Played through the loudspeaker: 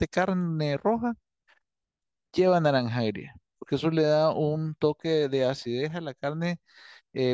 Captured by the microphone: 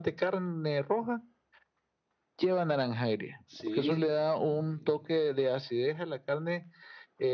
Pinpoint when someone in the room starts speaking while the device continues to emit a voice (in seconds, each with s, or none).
3.5 s